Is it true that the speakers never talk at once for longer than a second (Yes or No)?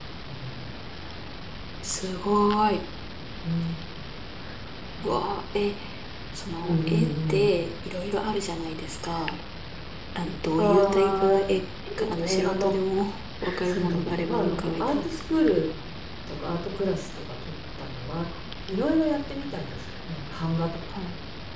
No